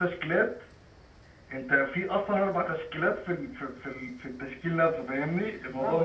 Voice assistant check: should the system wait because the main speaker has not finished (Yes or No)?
No